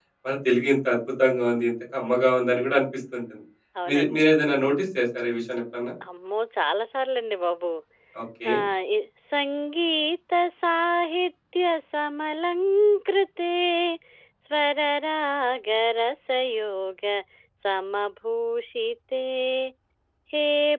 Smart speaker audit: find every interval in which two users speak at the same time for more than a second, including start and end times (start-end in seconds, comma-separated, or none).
none